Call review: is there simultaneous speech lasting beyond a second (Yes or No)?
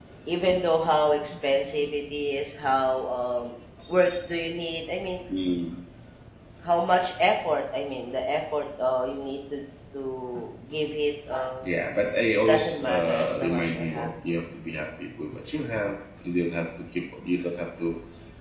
Yes